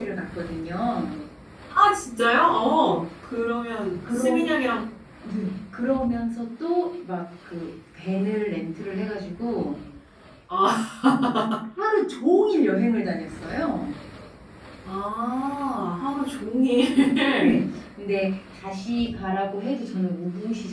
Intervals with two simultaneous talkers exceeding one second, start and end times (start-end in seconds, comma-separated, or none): none